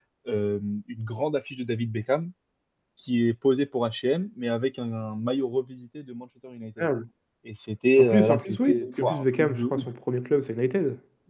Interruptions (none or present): present